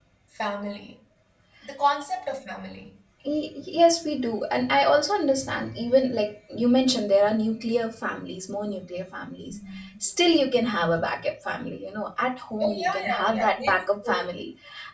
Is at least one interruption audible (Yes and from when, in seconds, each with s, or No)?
Yes, from 12.6 s